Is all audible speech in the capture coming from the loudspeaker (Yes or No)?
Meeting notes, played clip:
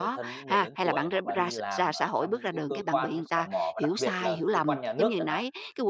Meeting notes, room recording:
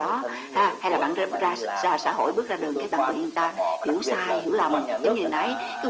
No